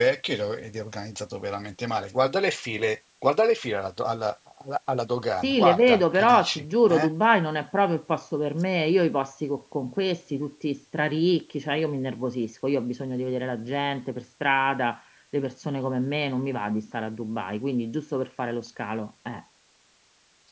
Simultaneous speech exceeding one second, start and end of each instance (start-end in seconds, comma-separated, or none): 5.4-7.1